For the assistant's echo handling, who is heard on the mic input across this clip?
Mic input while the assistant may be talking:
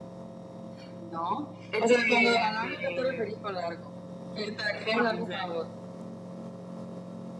echo only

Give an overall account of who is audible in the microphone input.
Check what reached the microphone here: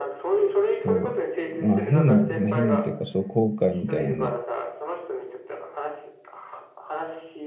both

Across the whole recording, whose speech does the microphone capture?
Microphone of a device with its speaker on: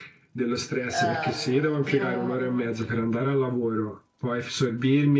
both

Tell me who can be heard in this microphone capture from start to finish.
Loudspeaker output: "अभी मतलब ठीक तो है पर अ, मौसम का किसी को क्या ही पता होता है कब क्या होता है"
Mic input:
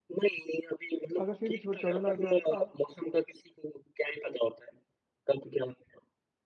both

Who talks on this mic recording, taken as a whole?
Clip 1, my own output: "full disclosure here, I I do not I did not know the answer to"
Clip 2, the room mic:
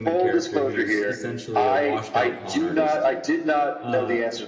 both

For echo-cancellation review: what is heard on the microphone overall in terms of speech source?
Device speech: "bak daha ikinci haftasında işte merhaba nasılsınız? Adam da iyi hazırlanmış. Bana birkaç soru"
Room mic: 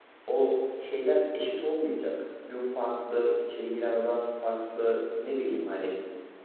user only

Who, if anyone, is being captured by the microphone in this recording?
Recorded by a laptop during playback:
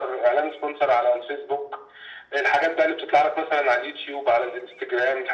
echo only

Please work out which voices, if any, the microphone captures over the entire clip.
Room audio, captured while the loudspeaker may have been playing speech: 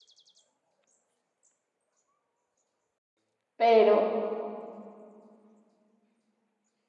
user only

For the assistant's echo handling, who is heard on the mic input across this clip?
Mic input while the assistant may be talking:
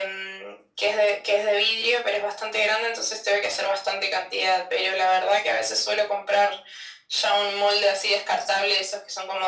echo only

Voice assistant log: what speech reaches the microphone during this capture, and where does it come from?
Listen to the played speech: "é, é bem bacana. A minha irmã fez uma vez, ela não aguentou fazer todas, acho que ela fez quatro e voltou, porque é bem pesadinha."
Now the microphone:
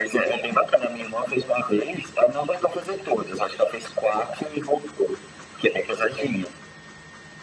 echo only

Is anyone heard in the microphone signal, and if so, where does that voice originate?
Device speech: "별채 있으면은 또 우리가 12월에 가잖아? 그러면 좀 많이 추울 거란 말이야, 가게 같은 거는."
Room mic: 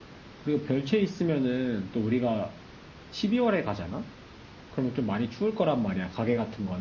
echo only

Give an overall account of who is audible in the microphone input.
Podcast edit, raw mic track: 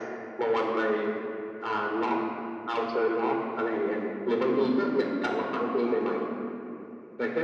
echo only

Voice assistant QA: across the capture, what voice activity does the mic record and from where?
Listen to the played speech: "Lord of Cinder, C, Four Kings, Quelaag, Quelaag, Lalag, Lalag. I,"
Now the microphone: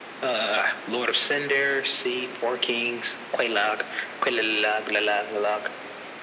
echo only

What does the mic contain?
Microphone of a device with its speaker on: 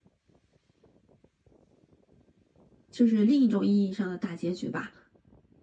user only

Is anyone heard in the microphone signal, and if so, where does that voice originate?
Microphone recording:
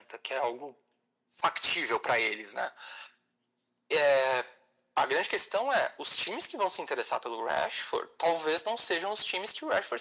echo only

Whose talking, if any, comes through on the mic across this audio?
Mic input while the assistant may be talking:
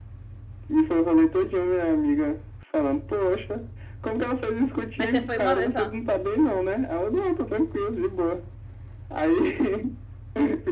both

